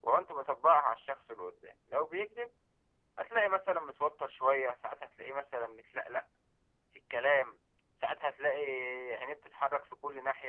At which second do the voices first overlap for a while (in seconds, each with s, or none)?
none